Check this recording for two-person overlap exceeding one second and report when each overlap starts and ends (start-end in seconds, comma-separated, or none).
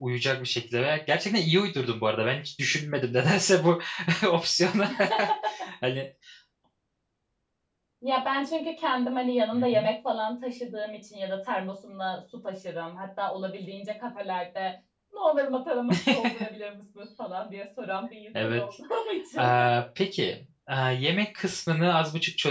none